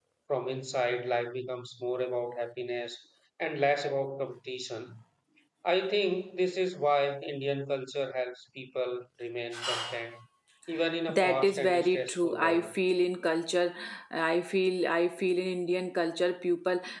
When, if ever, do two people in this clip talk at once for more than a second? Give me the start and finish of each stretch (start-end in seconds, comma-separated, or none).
11.2-12.7